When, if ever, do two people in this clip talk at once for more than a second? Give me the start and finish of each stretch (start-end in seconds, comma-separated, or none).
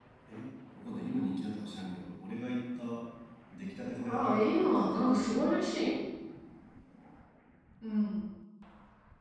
4.1-5.5